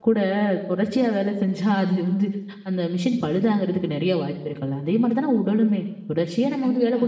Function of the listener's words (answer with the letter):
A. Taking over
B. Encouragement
B